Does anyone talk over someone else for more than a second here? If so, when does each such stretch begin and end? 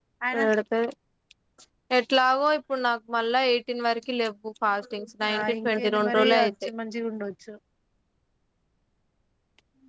5.3-6.7

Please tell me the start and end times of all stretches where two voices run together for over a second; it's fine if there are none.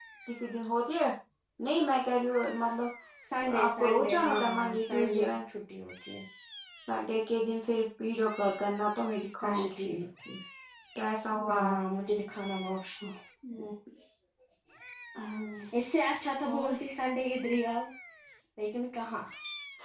3.6-5.3

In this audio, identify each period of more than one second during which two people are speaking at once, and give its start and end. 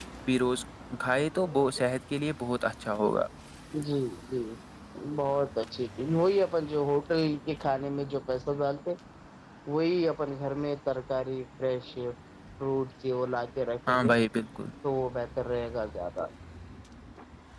none

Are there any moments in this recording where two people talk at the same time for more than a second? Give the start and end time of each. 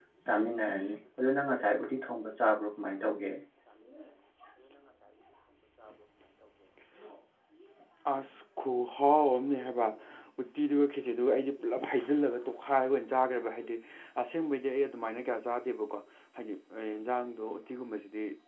none

